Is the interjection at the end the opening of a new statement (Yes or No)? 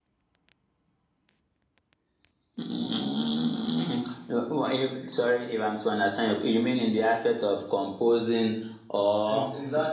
Yes